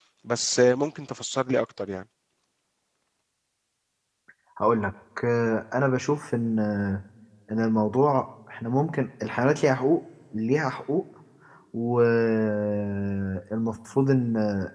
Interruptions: none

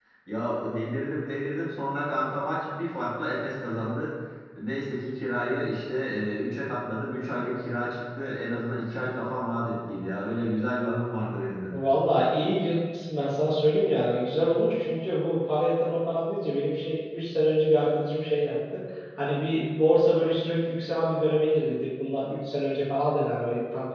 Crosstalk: none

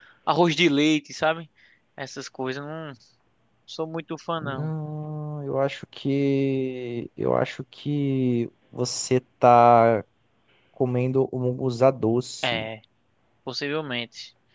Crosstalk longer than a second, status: none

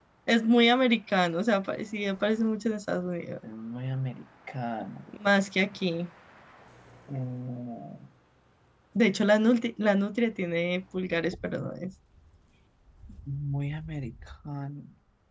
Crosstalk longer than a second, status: none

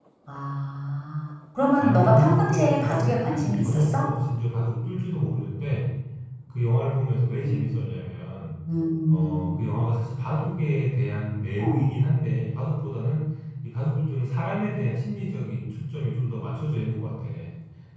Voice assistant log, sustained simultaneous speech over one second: present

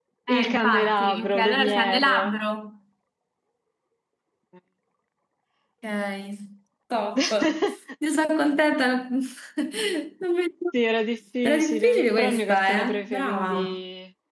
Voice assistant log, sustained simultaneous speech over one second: present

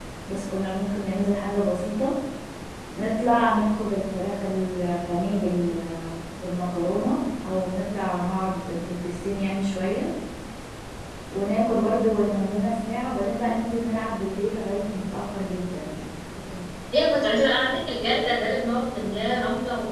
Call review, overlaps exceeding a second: none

